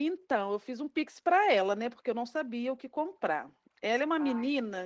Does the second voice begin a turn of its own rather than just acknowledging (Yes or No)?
No